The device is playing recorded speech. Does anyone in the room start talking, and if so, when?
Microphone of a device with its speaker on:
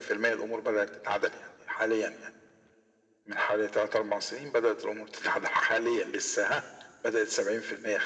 none

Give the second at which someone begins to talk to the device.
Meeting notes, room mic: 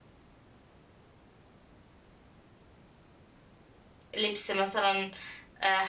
4.2 s

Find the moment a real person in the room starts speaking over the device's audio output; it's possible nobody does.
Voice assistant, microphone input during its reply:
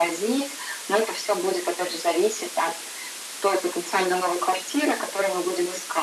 none

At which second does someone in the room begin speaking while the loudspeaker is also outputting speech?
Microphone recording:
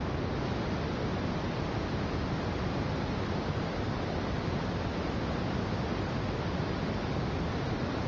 none

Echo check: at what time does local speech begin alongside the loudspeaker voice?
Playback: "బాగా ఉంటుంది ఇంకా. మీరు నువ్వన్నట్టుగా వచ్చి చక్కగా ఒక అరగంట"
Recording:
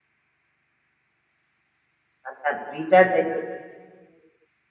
2.3 s

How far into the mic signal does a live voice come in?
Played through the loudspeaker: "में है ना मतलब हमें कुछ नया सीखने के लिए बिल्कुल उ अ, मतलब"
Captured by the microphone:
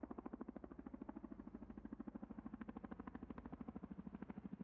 none

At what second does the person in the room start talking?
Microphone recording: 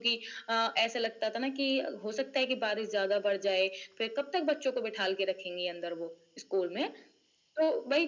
none

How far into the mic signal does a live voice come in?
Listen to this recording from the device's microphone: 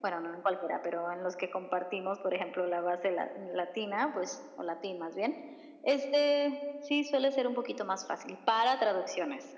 none

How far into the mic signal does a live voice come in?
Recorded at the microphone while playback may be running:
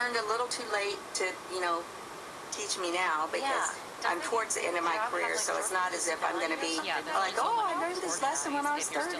6.8 s

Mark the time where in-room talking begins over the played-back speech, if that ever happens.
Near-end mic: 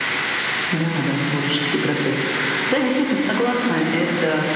none

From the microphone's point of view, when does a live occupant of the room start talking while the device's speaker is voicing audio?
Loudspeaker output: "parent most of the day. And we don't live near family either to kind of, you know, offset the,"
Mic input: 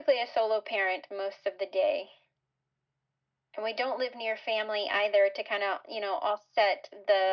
none

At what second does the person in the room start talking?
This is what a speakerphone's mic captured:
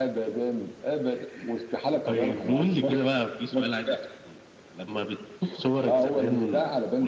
none

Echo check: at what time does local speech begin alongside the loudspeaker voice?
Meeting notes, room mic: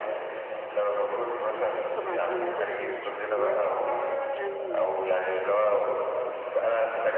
1.9 s

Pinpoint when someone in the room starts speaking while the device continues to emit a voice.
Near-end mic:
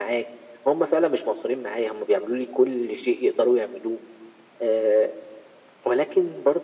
none

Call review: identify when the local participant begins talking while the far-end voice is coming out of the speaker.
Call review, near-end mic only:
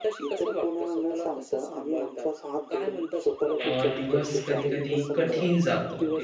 3.6 s

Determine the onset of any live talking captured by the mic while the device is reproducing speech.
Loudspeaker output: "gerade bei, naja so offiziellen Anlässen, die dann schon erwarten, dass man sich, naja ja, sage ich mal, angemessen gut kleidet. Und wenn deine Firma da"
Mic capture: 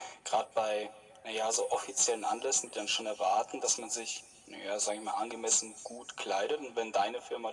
none

